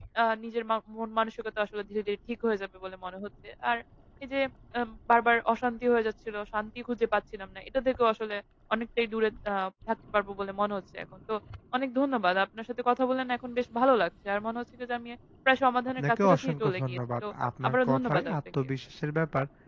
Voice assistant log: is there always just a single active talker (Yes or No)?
No